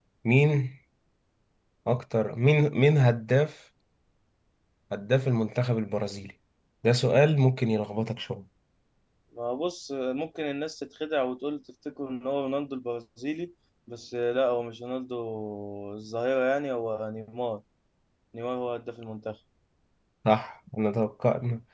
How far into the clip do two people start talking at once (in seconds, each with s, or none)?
none